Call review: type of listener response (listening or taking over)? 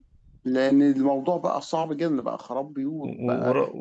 taking over